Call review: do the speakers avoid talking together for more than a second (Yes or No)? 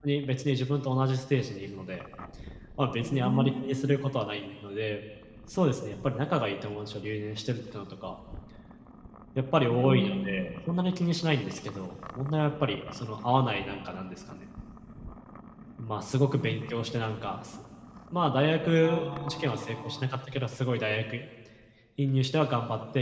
No